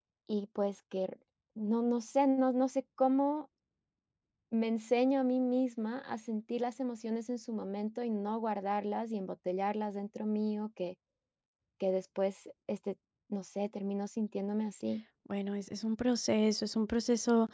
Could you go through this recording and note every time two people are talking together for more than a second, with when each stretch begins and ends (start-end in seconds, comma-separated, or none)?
none